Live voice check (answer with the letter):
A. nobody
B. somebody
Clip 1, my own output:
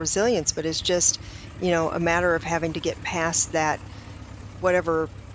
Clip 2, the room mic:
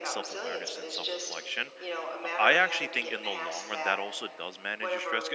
B